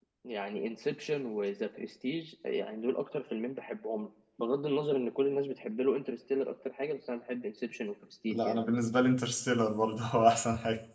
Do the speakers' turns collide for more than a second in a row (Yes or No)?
No